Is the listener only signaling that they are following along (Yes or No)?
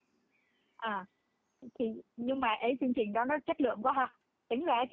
Yes